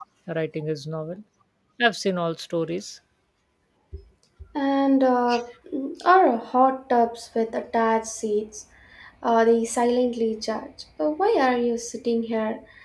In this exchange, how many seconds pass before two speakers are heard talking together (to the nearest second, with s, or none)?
none